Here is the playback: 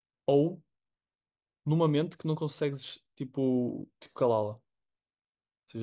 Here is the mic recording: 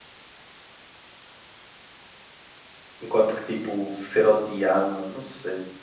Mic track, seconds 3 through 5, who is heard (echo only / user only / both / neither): user only